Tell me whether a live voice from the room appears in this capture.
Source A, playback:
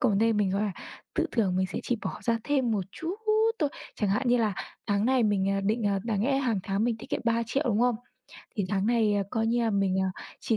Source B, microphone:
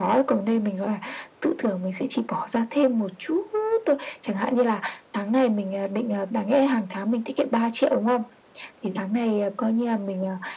No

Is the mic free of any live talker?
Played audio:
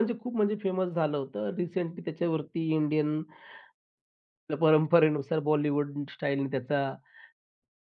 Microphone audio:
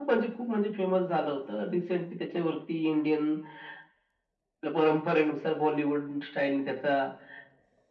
Yes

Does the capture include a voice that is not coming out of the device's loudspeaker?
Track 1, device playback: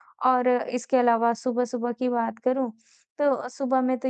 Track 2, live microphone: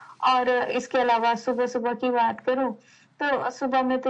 No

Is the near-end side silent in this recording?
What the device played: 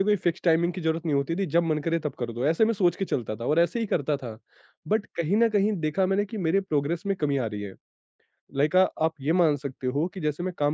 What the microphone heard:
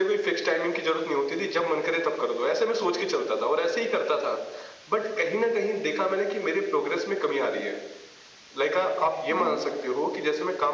No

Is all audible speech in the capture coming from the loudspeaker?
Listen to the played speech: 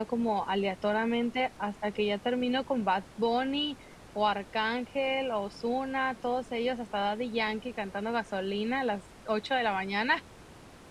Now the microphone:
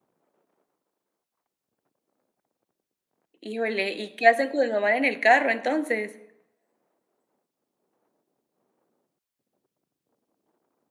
No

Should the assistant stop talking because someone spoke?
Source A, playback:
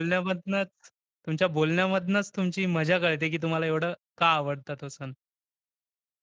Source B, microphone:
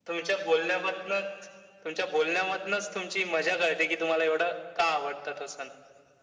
No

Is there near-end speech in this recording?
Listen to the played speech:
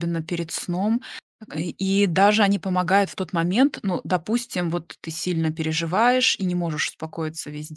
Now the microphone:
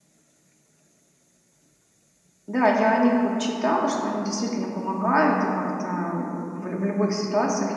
Yes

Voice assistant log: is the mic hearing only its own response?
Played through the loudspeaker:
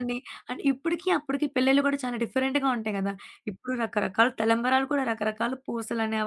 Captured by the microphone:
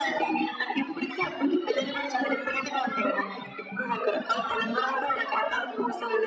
Yes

